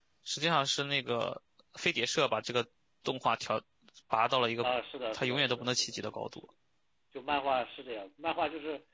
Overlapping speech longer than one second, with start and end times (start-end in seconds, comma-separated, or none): 5.1-6.5